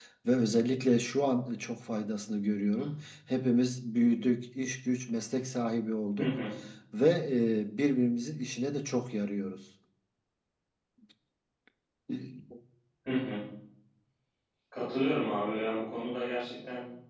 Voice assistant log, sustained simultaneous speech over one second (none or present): none